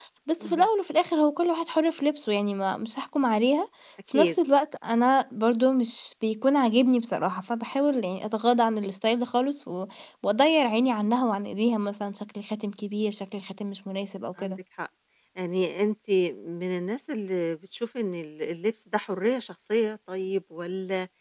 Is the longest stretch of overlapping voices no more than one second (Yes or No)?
Yes